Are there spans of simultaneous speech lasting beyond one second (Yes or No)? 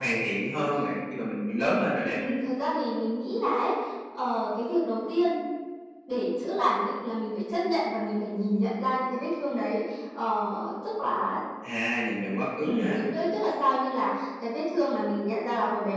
No